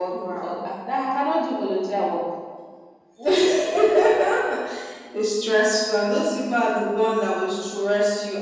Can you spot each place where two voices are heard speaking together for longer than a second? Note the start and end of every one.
none

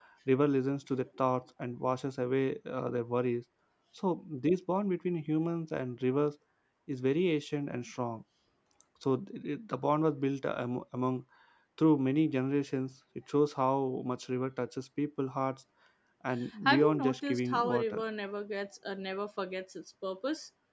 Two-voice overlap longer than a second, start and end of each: 16.6-18.0

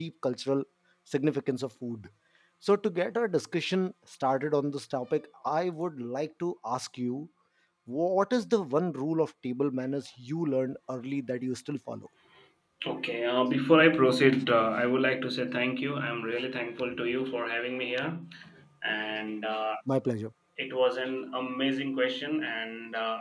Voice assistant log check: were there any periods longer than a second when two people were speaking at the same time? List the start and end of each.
none

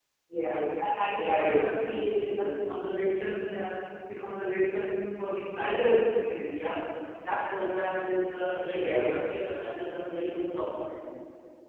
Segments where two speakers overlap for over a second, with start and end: 1.1-2.6

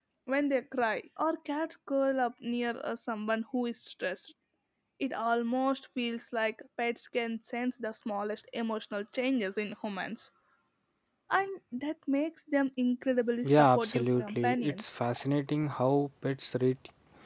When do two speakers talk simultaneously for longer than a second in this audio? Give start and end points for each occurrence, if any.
13.5-14.8

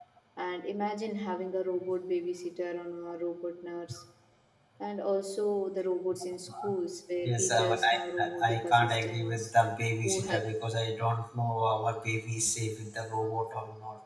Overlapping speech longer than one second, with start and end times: 7.2-9.5

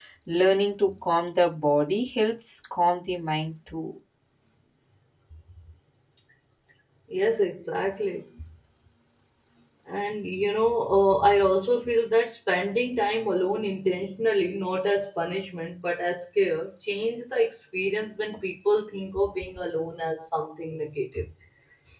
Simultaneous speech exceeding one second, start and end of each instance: none

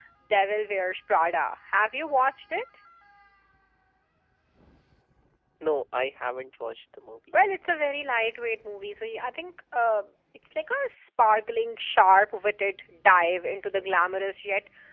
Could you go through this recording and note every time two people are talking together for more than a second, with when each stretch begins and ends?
none

